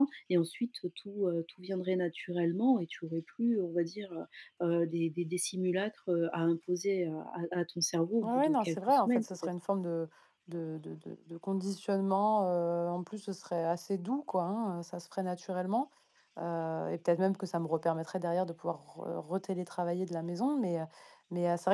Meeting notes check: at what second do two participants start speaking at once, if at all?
8 s

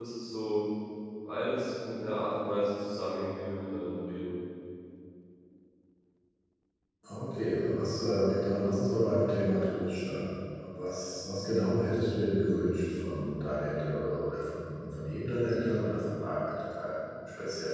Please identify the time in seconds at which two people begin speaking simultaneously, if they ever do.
none

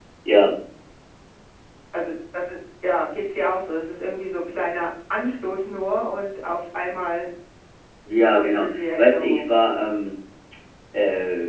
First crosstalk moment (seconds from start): 8 s

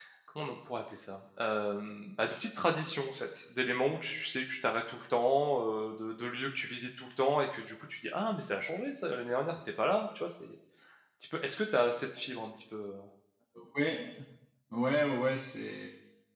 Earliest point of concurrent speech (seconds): none

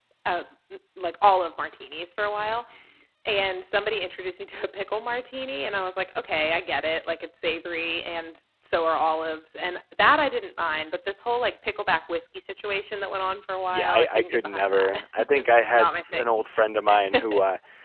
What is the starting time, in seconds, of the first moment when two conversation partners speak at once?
14 s

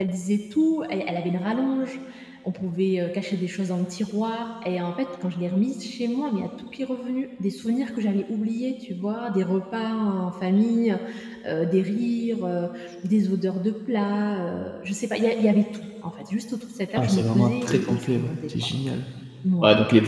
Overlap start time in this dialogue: 17 s

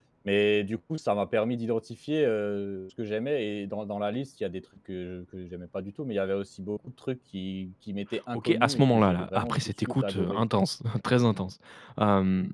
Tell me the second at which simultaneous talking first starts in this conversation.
8 s

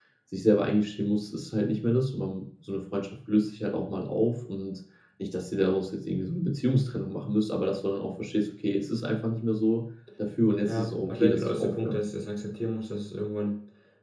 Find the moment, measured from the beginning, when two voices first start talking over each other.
11 s

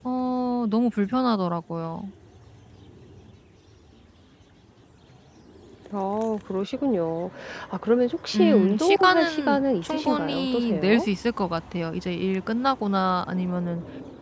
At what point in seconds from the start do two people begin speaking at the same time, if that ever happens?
8 s

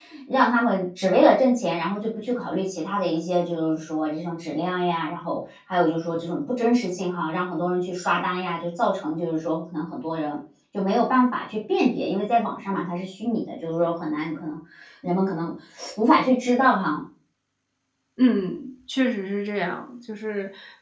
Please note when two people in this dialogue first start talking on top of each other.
none

